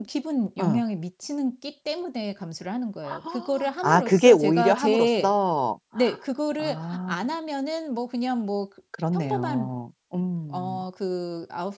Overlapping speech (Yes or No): Yes